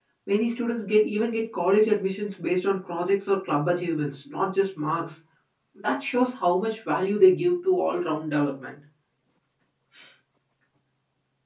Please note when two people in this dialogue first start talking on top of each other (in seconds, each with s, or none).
none